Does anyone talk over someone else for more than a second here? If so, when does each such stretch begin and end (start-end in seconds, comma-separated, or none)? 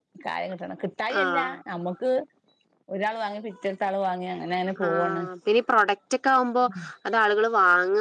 none